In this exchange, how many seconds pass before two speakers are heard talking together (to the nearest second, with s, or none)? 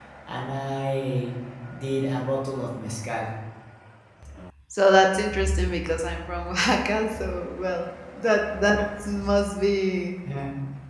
none